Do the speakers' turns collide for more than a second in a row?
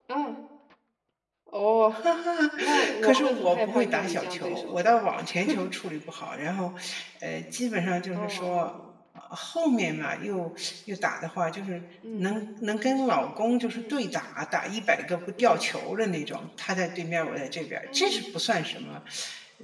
Yes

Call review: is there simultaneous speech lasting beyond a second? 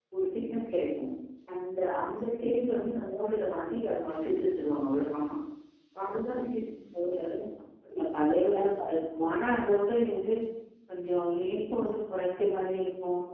No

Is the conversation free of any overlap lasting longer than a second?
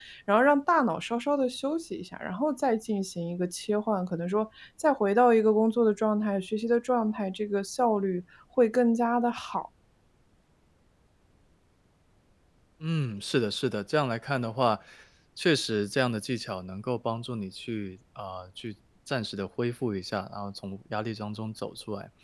Yes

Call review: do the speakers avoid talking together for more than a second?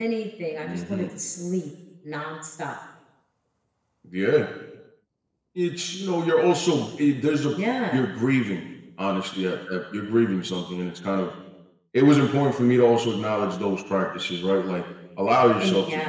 Yes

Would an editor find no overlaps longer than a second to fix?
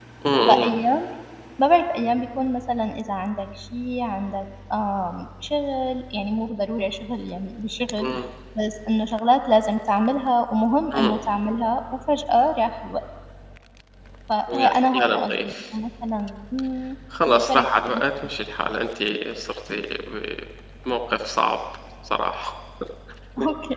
No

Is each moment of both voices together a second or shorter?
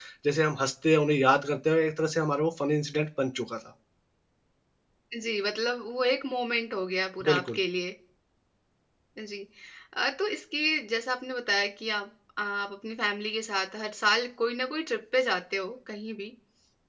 Yes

